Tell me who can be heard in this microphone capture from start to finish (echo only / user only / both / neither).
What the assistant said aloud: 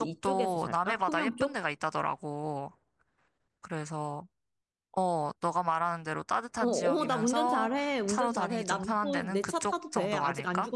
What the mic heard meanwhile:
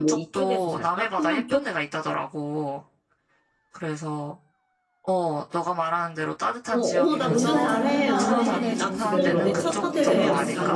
both